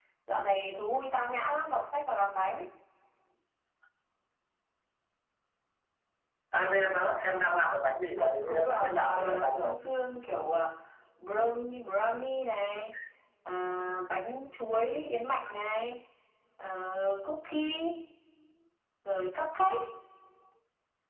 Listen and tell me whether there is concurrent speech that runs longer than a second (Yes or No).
Yes